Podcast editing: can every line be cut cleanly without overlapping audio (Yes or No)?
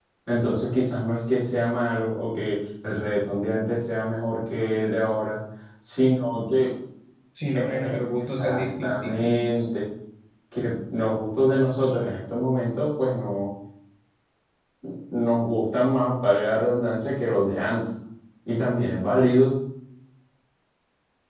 No